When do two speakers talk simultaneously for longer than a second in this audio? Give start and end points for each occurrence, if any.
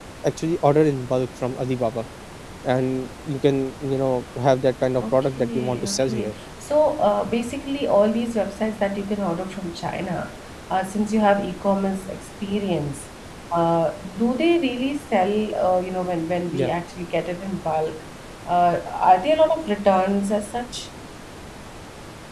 5.0-6.3

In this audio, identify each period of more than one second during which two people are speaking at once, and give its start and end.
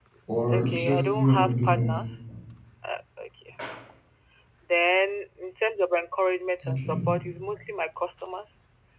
0.5-2.0

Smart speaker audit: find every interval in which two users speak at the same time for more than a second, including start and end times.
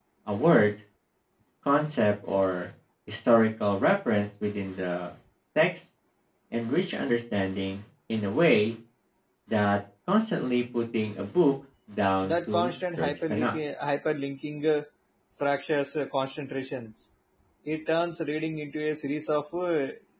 12.2-13.6

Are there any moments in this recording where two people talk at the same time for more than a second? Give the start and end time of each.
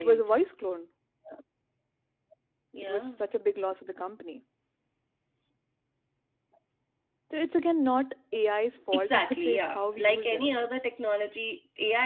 8.9-10.4

